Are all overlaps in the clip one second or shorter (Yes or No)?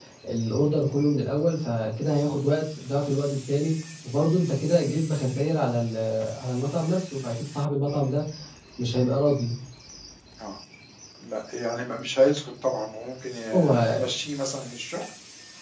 Yes